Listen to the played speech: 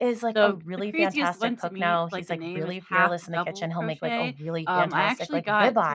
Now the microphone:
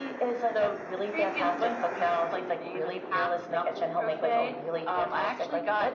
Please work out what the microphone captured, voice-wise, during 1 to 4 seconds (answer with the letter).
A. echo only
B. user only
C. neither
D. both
A